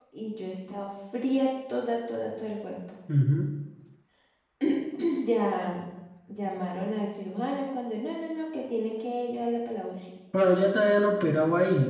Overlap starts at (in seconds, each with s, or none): none